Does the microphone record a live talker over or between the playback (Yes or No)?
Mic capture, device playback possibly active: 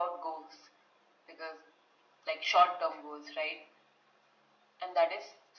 No